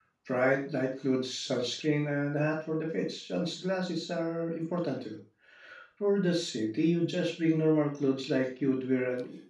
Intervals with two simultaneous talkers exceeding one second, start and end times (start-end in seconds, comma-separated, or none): none